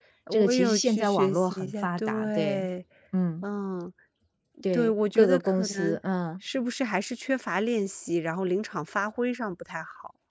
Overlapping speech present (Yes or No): Yes